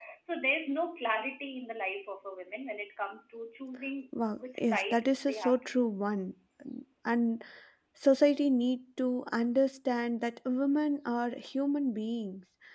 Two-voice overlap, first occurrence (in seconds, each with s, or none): 4.1 s